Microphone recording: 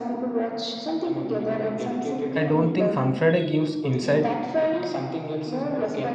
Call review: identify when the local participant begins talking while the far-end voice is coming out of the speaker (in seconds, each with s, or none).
2.4 s